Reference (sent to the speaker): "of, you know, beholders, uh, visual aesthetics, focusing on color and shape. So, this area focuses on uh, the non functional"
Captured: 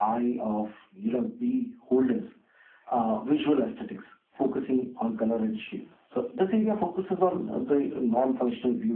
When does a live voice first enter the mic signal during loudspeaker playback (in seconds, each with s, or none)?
none